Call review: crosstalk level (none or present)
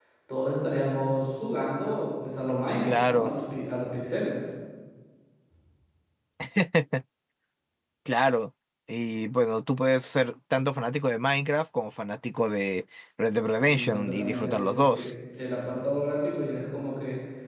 present